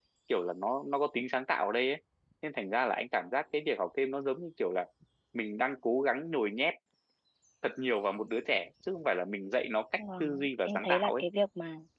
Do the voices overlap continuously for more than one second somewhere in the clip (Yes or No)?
Yes